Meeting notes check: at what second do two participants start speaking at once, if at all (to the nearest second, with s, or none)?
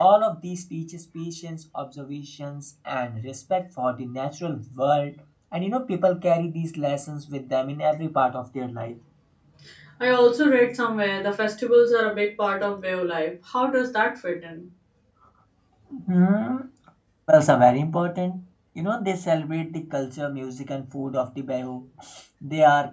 none